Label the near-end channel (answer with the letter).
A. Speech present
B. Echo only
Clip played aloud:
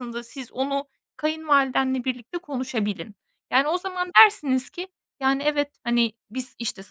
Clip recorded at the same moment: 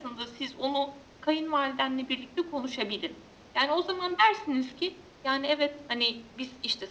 B